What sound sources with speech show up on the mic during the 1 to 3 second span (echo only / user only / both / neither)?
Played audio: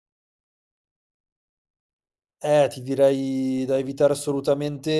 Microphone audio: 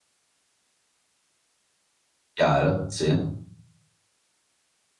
user only